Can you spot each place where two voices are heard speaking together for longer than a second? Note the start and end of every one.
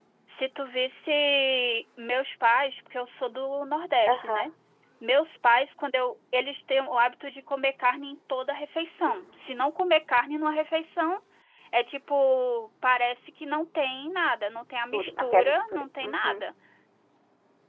14.9-16.4

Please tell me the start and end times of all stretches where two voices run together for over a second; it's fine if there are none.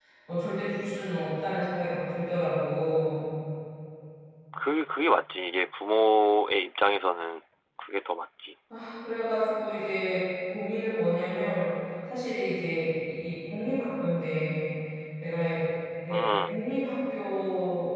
none

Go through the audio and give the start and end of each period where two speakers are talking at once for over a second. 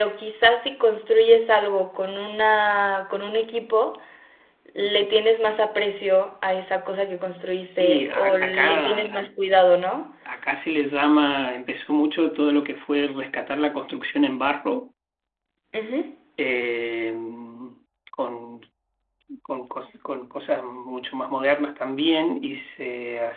7.5-9.3

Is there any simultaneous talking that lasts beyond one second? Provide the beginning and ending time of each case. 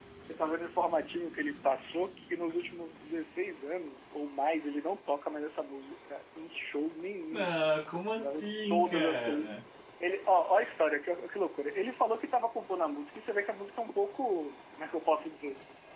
8.2-9.5

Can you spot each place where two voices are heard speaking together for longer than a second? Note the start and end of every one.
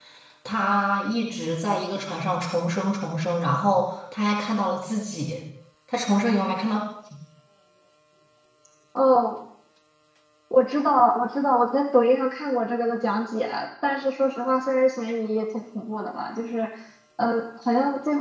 none

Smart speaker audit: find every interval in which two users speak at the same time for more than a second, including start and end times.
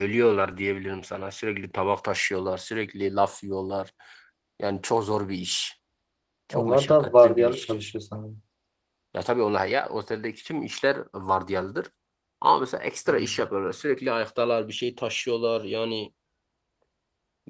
6.5-7.7

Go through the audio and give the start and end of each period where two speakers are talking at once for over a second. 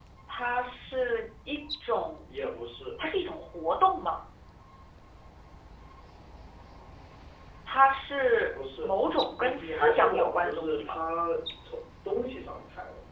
9.4-11.0

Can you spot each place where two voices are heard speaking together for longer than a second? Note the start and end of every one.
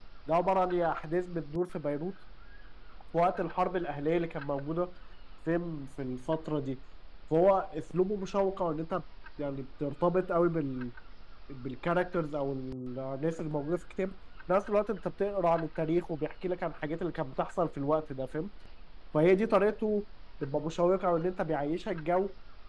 none

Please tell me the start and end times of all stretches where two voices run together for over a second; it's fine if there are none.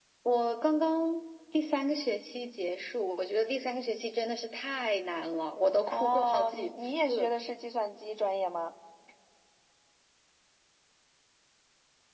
5.9-7.3

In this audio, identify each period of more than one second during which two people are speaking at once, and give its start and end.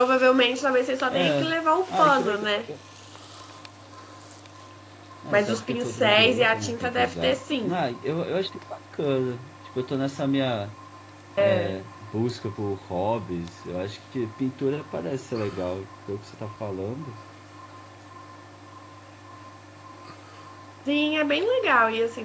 5.3-7.8

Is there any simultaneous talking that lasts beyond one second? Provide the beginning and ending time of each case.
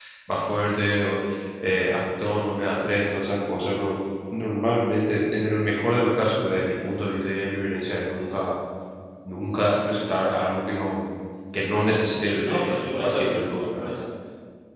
12.4-13.8

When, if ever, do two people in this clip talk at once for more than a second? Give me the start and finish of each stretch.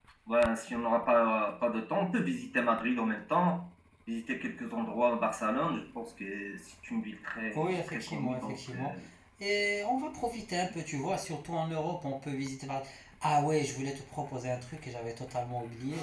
7.5-8.9

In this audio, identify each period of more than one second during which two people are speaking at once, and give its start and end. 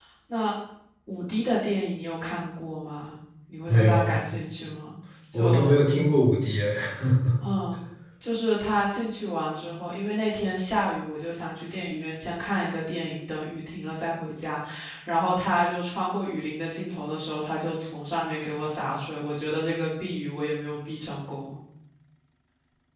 none

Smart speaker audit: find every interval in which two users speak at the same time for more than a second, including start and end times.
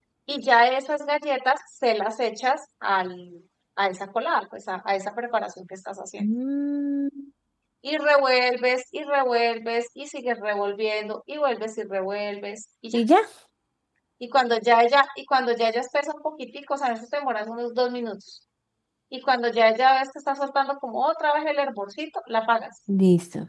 none

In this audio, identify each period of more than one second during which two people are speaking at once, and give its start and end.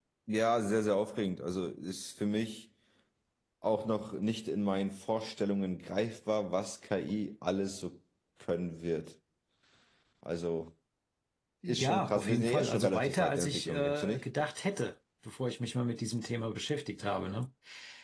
11.7-14.2

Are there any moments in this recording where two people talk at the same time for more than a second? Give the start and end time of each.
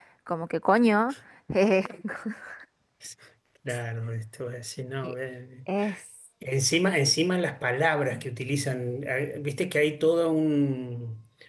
none

